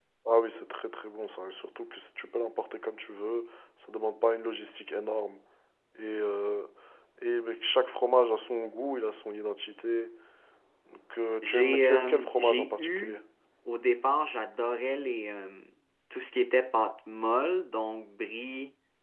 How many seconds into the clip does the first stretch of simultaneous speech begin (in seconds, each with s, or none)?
11.4 s